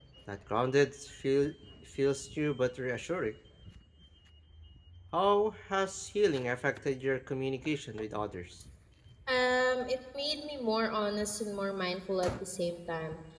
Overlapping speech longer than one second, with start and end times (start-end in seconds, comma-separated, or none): none